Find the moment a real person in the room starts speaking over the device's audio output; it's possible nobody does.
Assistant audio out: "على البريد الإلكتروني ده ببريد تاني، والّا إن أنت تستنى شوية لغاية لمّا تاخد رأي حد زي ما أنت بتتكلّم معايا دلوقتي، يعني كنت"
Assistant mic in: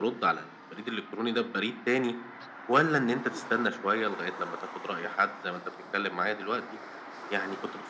none

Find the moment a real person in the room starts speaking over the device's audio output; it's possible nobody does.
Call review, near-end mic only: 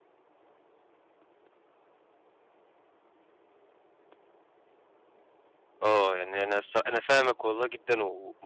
5.8 s

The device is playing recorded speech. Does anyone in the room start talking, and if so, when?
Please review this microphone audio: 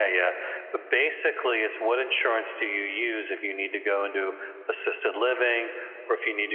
none

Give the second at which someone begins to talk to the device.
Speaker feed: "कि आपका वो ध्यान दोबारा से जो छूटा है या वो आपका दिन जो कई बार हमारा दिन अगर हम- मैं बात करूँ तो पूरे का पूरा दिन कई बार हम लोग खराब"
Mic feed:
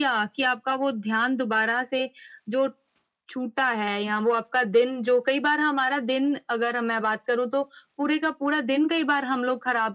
none

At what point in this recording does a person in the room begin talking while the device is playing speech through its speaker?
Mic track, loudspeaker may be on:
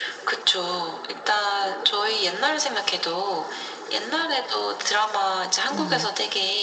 5.7 s

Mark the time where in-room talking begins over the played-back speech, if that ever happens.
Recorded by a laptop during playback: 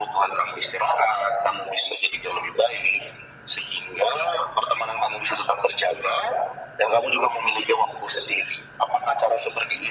none

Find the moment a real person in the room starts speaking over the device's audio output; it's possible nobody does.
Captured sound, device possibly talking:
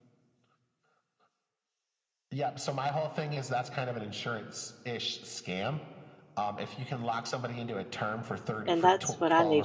8.7 s

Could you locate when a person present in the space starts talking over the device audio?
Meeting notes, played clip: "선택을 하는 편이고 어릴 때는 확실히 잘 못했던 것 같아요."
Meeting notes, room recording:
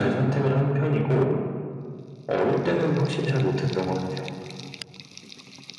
none

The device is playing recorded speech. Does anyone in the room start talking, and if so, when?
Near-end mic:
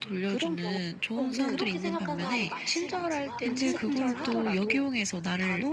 1.4 s

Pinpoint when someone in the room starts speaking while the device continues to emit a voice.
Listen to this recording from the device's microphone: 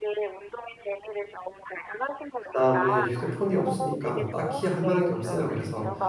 2.4 s

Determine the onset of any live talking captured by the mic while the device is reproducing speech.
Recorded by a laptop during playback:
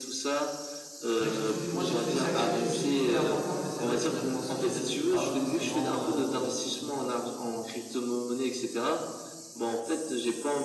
1.1 s

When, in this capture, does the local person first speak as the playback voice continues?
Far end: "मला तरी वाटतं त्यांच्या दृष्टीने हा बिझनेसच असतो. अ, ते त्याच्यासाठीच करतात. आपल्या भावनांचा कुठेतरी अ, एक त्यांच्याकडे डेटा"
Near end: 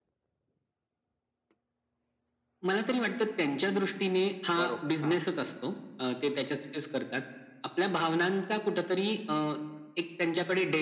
4.6 s

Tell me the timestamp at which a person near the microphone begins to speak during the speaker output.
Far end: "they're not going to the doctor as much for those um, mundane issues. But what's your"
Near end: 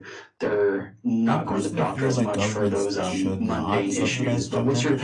1.3 s

